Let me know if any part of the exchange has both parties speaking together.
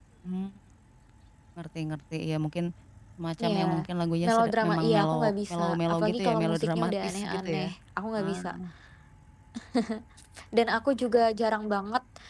Yes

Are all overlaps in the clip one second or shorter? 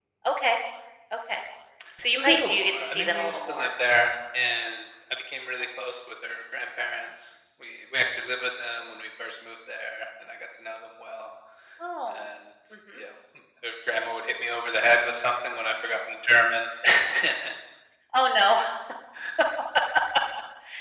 No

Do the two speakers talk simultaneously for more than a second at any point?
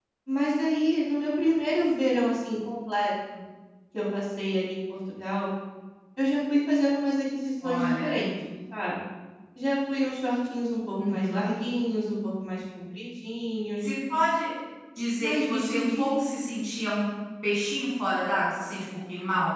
Yes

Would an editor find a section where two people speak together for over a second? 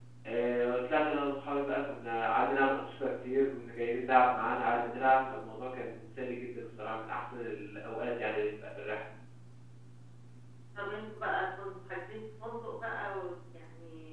No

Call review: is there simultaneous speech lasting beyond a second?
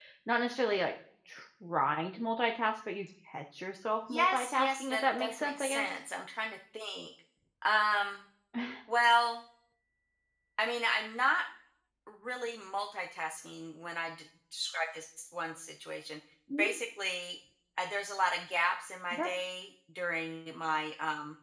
Yes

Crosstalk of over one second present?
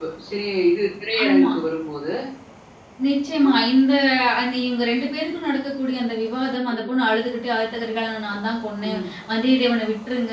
No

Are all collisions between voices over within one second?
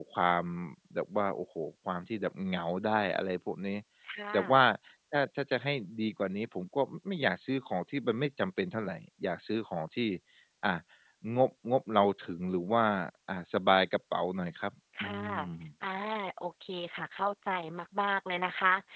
Yes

